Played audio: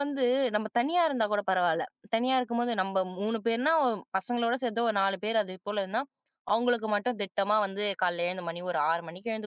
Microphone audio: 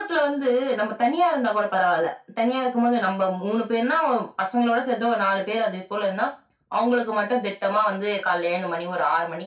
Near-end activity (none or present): none